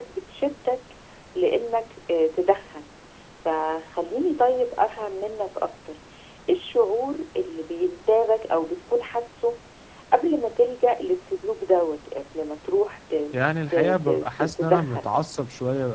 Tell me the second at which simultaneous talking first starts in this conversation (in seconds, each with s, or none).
13.7 s